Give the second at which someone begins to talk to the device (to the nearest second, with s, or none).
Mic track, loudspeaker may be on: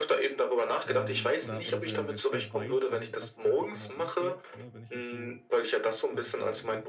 1 s